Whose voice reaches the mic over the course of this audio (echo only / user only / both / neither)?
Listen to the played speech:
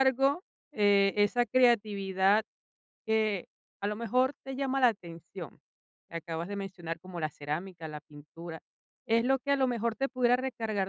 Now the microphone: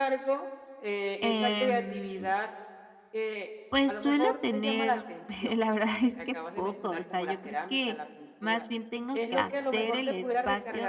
both